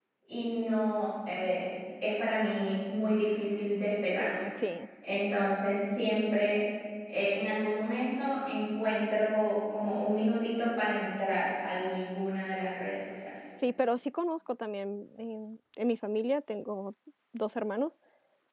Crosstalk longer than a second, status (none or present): none